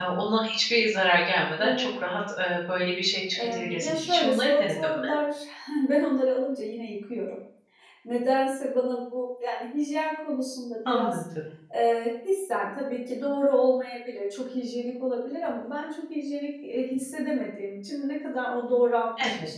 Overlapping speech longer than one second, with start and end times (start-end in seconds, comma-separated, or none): 3.4-5.1